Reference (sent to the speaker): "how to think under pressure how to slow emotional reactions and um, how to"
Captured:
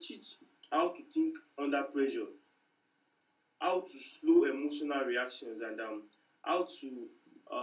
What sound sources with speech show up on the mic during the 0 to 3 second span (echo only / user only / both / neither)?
echo only